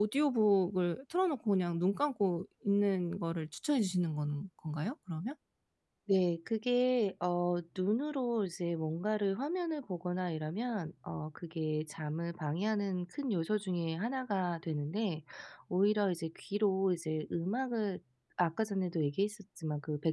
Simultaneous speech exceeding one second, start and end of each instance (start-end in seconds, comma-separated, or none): none